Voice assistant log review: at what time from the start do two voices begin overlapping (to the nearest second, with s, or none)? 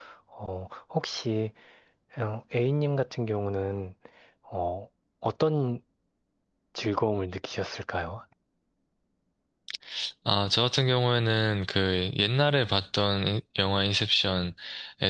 none